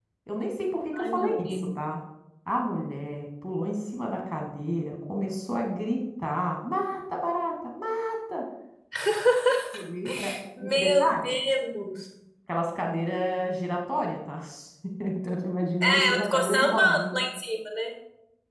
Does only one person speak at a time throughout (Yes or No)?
No